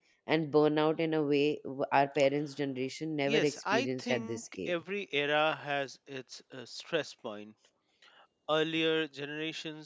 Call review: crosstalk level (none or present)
present